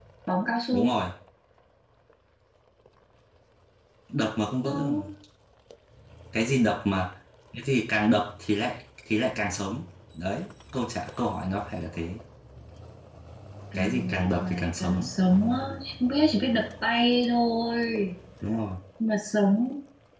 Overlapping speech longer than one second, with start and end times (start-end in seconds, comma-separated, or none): 13.7-15.1